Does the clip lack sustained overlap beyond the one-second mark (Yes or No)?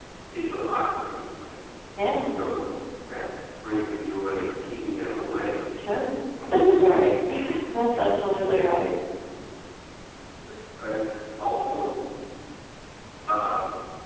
Yes